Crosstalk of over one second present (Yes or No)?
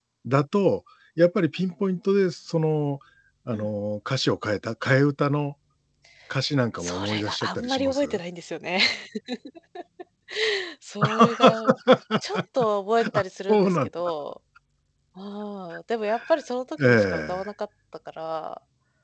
Yes